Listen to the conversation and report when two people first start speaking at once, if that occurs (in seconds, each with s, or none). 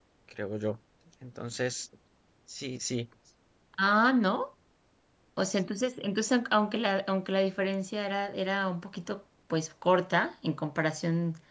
none